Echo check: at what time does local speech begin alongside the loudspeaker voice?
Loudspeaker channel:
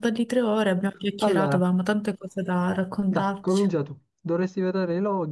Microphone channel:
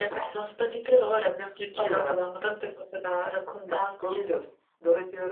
none

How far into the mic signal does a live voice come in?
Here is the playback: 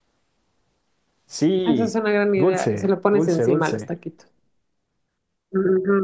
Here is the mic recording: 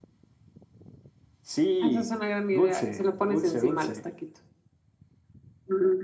none

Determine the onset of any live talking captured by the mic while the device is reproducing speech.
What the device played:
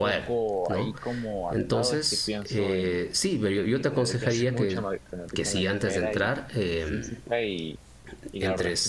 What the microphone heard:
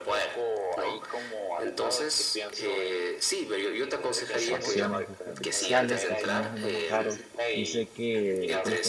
4.3 s

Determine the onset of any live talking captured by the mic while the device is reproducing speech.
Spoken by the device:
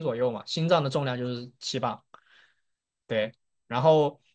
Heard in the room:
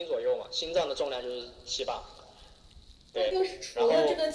3.1 s

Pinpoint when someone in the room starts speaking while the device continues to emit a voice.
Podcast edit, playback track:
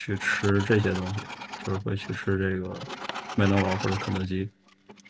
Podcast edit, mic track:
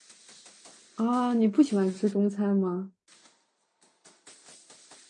0.9 s

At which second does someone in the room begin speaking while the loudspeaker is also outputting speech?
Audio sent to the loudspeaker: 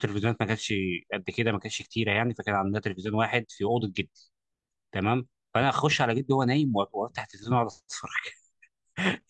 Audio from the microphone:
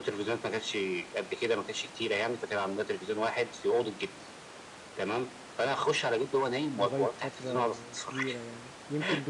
6.8 s

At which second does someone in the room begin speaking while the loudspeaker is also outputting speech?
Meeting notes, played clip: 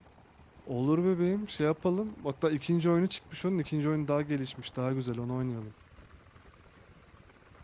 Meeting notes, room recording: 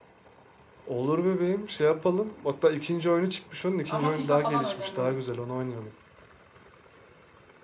3.9 s

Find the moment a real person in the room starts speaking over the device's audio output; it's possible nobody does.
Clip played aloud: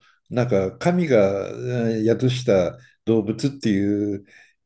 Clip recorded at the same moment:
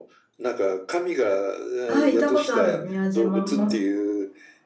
1.9 s

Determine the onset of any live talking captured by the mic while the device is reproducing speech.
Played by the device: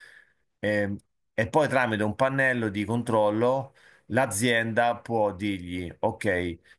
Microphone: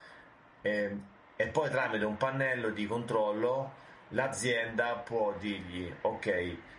none

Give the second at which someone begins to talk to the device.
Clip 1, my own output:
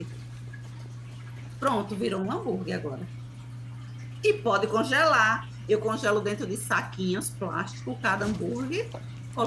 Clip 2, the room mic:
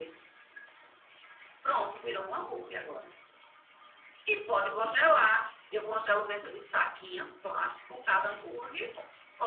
none

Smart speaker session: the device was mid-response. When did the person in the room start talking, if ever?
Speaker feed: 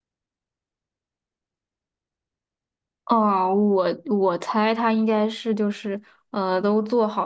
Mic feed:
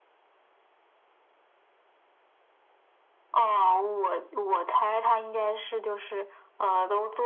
3.3 s

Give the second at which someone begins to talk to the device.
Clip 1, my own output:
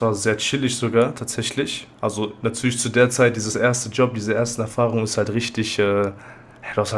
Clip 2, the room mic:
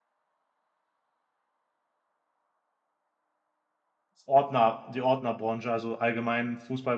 4.3 s

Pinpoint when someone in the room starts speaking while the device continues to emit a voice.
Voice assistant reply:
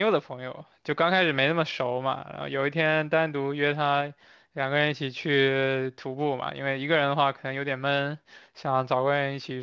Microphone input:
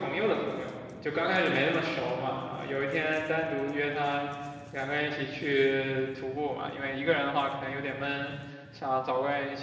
none

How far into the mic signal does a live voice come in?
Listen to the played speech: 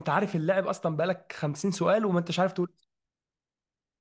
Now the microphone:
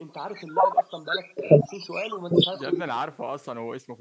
2.5 s

